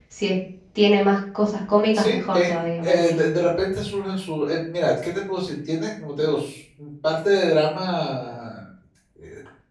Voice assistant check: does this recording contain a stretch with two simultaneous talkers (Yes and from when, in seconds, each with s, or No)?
Yes, from 1.9 s